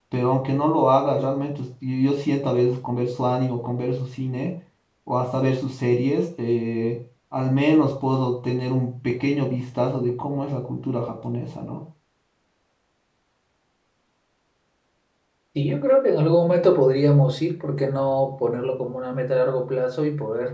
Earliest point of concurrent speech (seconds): none

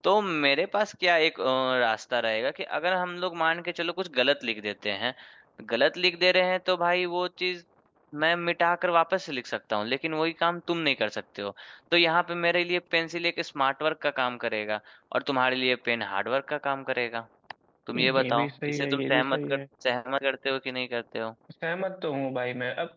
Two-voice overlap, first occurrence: 18.0 s

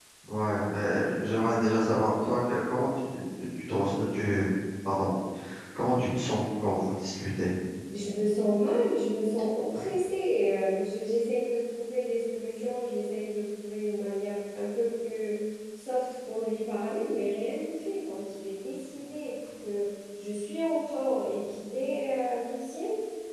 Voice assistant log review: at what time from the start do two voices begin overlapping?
none

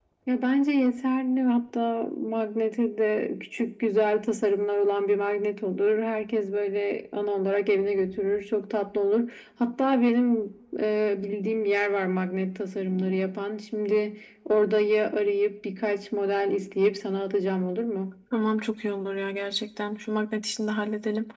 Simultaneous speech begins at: none

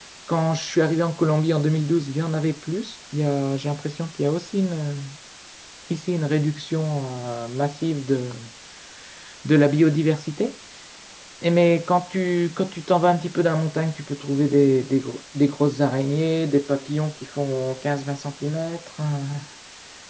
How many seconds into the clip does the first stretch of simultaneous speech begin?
none

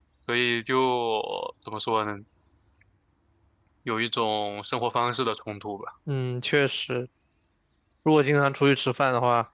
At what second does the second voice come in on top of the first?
none

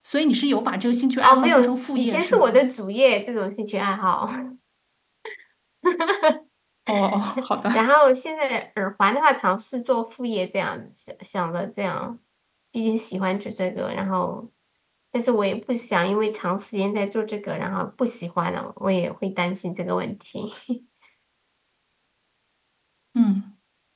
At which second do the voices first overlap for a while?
1.2 s

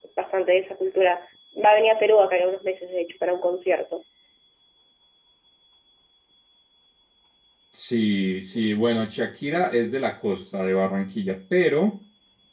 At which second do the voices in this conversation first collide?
none

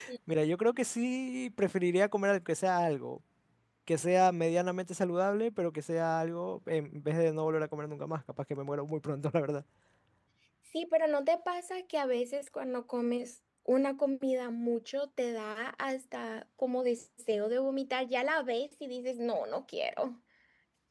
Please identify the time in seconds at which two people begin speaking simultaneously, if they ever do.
none

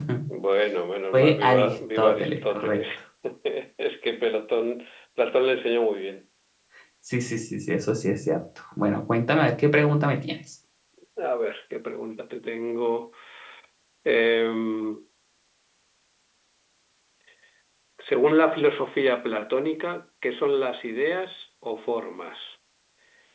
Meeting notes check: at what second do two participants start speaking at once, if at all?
1.1 s

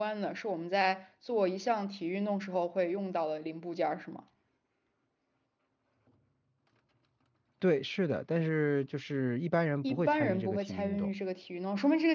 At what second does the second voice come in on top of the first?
9.8 s

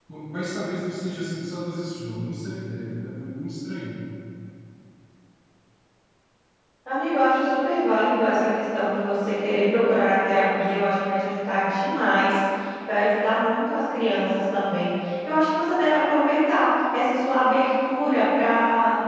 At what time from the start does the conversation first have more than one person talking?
none

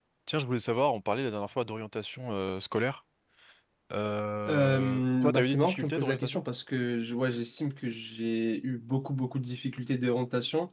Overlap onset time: 4.5 s

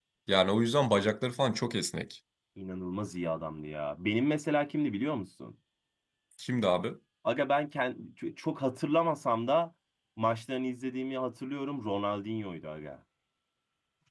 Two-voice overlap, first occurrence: none

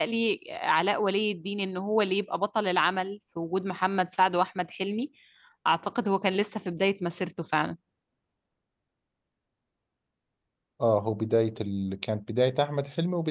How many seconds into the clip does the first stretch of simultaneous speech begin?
none

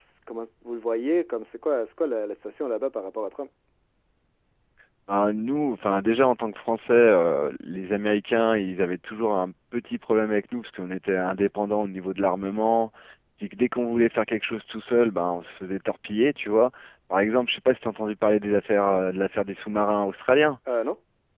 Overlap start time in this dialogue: none

